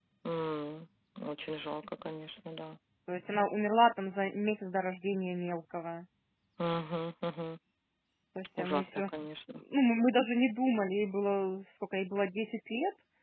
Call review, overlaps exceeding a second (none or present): none